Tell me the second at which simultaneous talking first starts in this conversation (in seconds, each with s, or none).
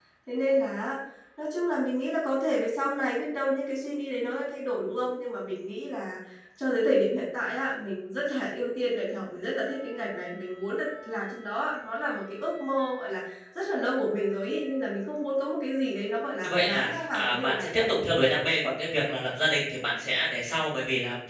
16.4 s